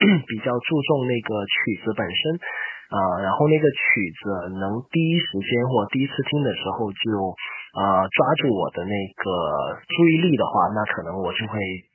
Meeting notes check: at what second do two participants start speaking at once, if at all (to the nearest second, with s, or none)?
none